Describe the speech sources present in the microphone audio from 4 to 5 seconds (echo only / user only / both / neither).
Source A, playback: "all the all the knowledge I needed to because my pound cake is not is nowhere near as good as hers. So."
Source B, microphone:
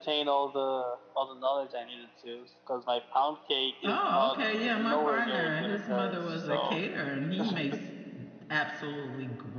both